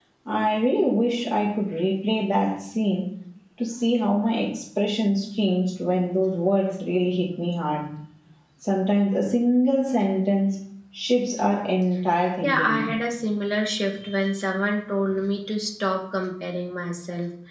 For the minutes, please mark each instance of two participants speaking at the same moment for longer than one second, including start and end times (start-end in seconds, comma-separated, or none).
none